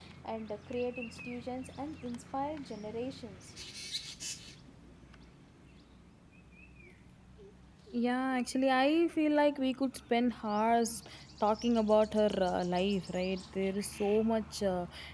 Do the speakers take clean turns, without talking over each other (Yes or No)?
Yes